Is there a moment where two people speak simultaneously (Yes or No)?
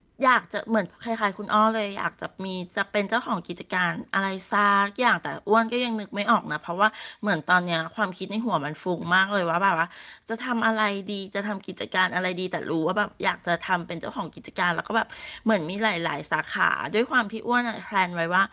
No